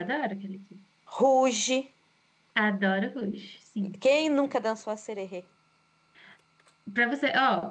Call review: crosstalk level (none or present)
none